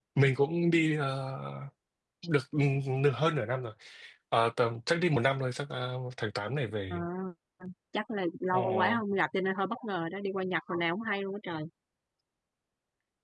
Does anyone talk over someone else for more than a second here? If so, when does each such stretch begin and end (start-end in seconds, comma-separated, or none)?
none